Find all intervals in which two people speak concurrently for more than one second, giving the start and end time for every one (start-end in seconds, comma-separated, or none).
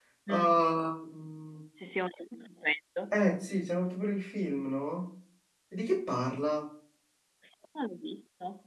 none